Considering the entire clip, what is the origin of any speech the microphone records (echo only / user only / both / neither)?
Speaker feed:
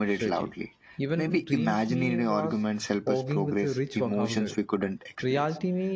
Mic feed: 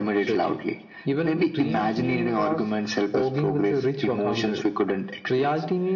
echo only